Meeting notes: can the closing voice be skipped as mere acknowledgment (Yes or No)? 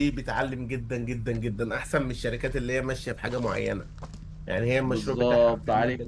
No